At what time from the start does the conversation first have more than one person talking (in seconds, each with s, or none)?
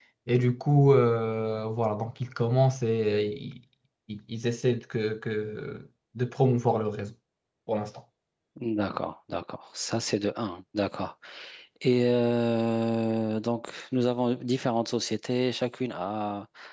none